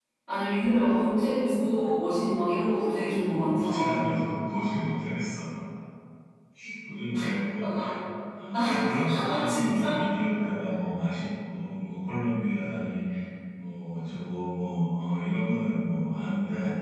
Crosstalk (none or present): present